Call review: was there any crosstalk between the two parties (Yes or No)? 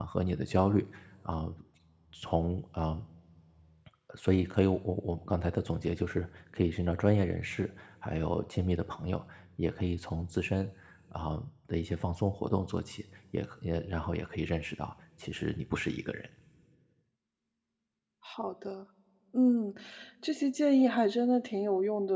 No